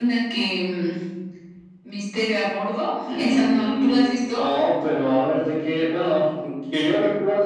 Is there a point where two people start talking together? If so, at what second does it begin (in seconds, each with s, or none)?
3.1 s